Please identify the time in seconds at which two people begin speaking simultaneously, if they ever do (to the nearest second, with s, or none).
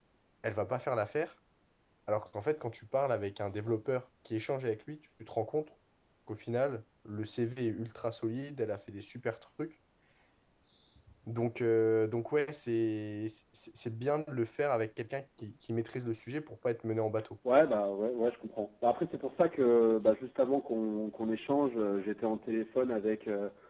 none